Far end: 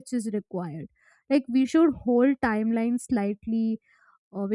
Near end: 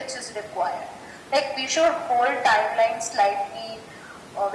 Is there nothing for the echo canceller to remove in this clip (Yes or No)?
No